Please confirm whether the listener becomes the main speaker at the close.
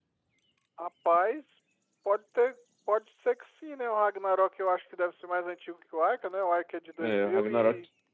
Yes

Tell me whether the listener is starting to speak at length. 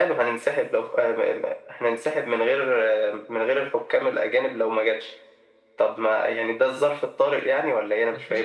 Yes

